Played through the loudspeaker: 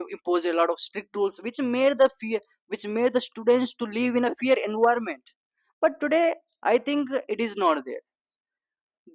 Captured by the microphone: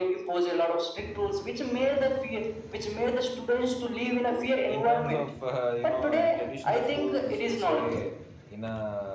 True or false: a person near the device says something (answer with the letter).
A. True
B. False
A